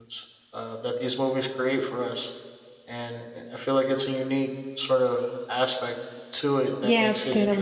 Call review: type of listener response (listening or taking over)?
taking over